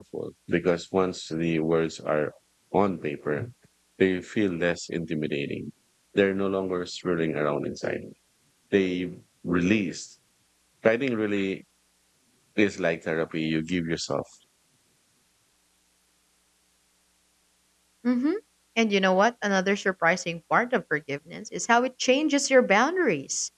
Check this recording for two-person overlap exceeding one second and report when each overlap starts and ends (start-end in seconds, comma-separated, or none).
none